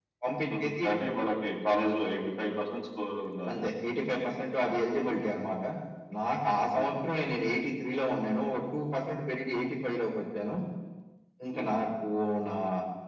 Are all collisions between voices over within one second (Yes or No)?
Yes